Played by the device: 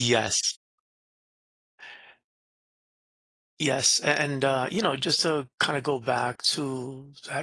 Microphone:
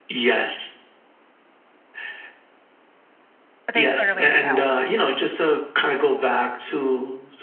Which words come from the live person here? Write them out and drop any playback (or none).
But they clearly need help.